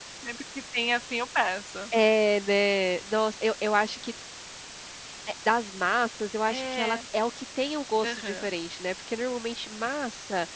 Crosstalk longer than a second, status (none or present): none